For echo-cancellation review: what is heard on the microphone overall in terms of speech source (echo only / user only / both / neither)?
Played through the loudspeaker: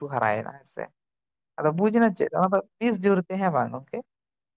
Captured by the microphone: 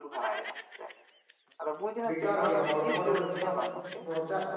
both